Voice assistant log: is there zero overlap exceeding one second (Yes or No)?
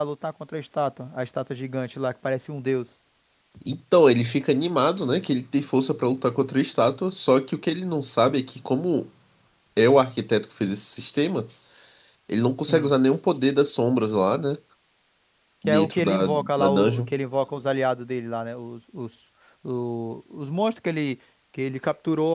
No